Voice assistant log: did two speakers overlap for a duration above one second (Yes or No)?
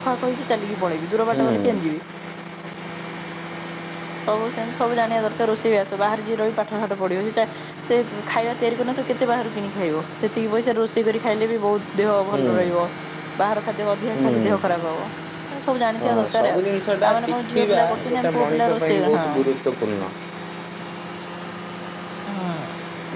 Yes